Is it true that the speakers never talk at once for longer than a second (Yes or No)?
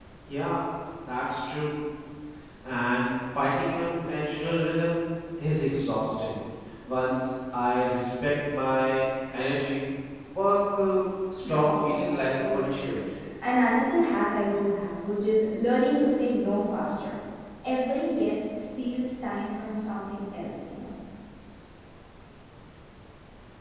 No